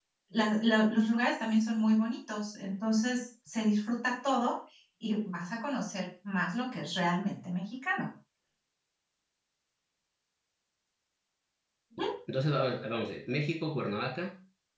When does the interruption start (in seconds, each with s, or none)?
none